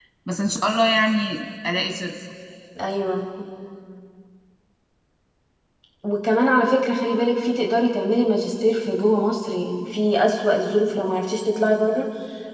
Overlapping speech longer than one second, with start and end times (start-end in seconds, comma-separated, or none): none